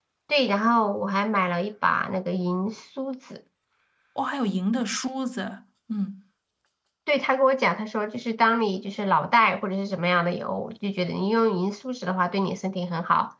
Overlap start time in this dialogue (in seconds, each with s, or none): none